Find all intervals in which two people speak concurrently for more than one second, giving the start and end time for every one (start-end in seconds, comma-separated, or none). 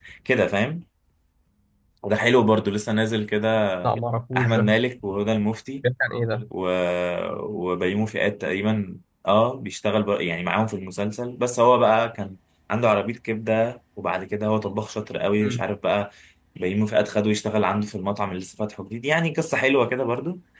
none